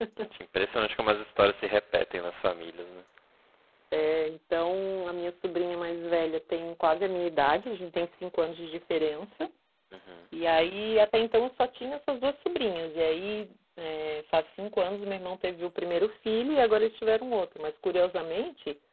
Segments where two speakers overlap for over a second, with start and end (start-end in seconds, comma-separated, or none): none